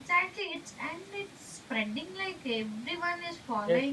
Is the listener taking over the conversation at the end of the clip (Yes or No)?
Yes